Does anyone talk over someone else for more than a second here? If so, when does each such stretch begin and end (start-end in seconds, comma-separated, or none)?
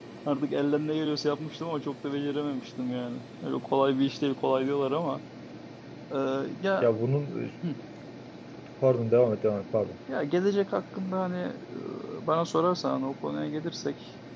none